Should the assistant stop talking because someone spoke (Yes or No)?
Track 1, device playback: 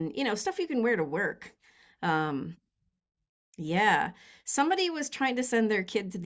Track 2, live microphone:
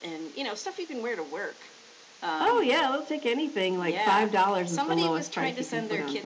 Yes